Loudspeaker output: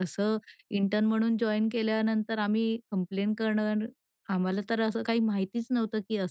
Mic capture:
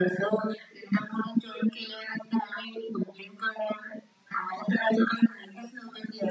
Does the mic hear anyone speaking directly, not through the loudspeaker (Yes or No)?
No